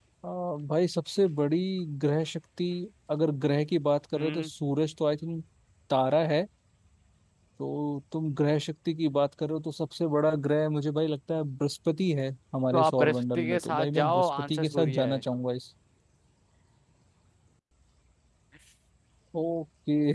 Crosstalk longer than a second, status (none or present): present